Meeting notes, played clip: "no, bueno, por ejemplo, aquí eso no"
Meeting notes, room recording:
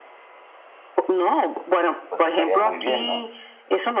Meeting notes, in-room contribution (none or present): present